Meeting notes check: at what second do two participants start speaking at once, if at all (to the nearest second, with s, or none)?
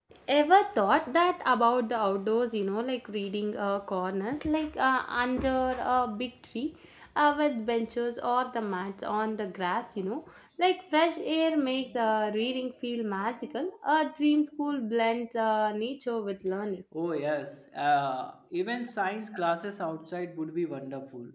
none